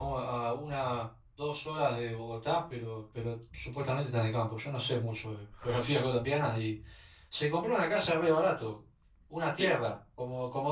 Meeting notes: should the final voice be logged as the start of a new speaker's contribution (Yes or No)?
No